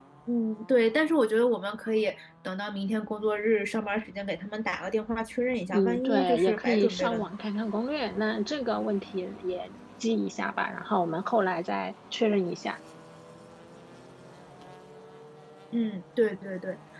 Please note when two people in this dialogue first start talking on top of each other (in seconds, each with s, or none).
5.7 s